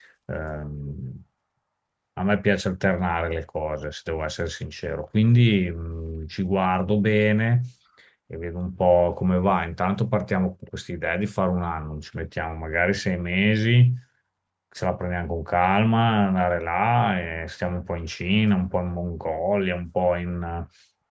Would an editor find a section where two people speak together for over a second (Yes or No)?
No